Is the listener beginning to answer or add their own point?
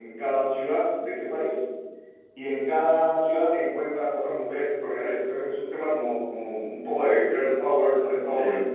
No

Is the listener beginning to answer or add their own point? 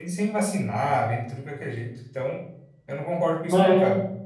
Yes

